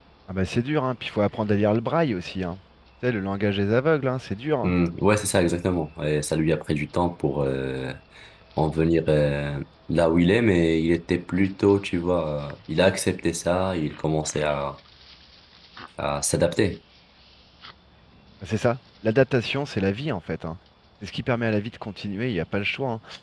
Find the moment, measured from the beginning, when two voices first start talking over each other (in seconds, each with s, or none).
none